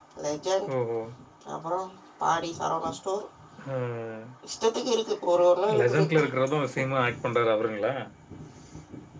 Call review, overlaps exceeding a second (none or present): none